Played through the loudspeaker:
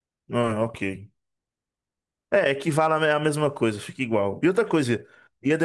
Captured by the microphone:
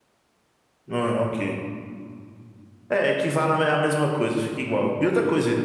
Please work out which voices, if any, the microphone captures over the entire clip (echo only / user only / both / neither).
echo only